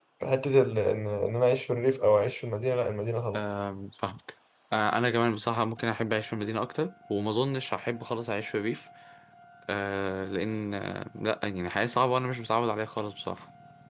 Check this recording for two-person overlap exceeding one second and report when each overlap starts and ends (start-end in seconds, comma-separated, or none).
none